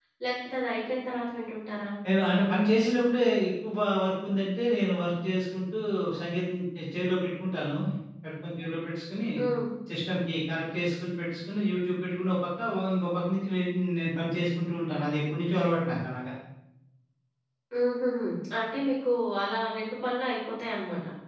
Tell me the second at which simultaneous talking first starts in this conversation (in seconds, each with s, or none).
none